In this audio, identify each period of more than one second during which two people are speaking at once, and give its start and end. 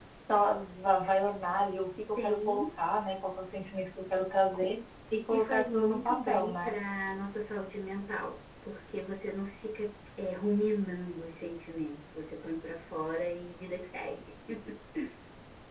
5.3-6.8

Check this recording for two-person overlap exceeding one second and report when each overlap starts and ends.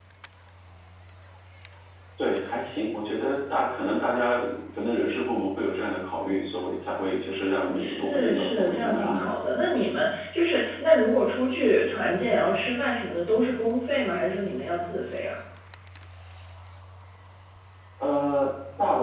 7.8-9.3

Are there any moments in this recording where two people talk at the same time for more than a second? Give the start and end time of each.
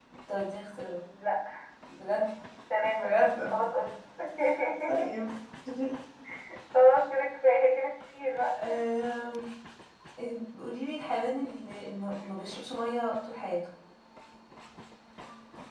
none

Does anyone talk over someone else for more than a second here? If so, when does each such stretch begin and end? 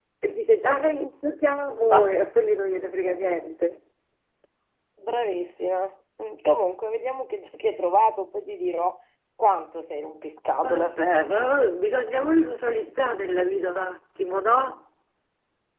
none

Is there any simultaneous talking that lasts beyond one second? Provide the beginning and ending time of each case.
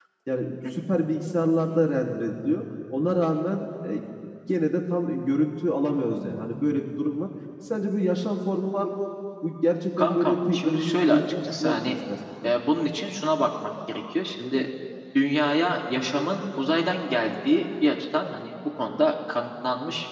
10.0-12.0

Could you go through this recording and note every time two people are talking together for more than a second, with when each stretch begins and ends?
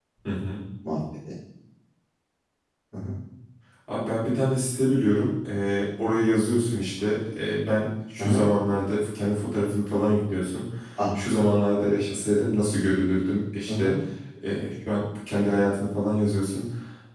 none

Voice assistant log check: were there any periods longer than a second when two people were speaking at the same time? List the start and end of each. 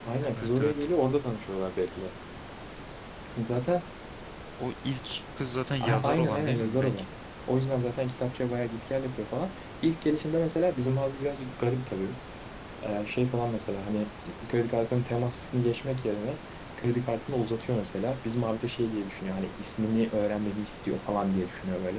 5.8-7.0

